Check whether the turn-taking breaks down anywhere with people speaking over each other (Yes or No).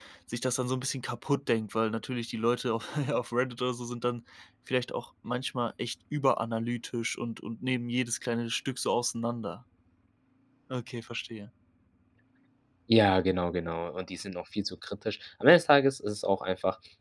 No